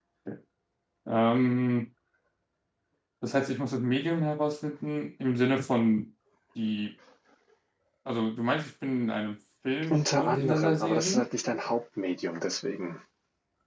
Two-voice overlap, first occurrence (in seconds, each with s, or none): 9.8 s